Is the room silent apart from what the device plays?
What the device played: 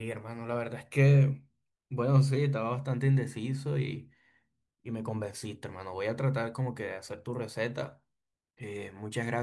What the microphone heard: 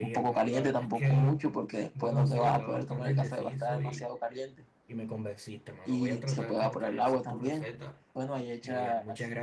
No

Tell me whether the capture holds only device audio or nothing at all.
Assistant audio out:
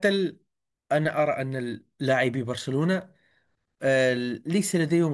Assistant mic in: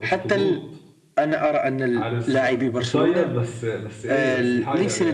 No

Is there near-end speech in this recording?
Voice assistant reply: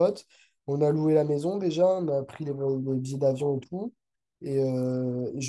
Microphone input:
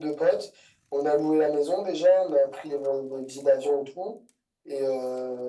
No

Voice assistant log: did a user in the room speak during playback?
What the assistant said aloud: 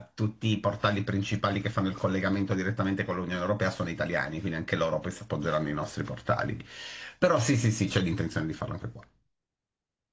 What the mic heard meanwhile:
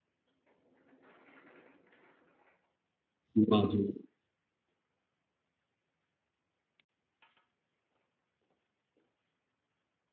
Yes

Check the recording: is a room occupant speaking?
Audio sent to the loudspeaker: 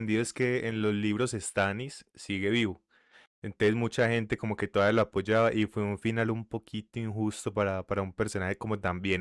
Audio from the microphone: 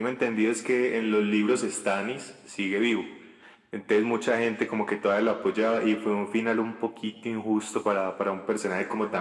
No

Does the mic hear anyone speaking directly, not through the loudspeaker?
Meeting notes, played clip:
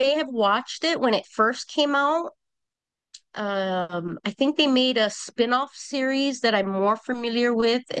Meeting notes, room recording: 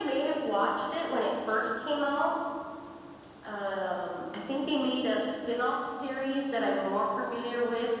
No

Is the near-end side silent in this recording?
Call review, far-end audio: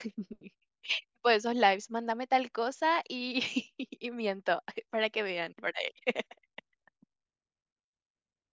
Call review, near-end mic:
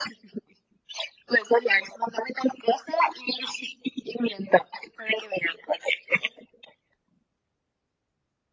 Yes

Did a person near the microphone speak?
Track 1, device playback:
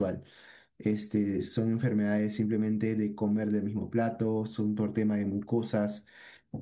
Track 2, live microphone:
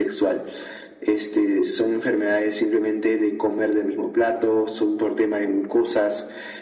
No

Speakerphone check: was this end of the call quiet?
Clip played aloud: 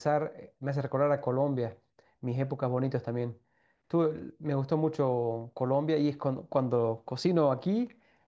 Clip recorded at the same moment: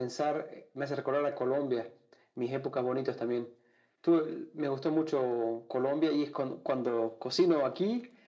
Yes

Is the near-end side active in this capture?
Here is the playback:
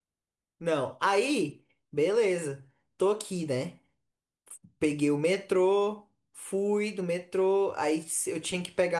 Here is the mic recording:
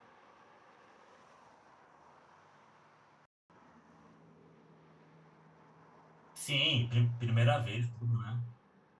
Yes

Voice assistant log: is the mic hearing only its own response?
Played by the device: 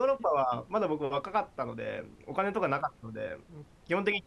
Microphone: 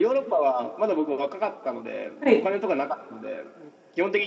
No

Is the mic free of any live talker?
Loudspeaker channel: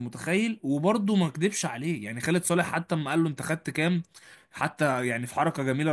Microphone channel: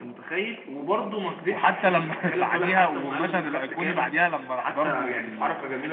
No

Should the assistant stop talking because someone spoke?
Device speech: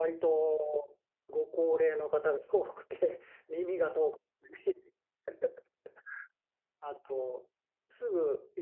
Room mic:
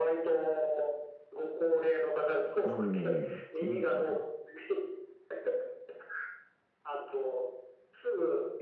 Yes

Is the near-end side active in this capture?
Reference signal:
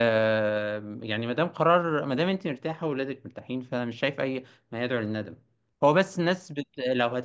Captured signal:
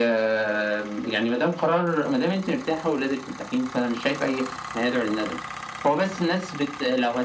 No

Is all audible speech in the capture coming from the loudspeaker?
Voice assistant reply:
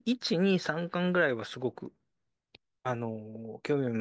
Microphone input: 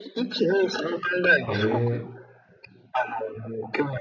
No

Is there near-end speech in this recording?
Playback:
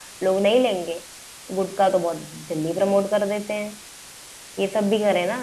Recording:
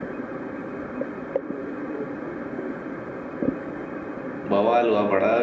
Yes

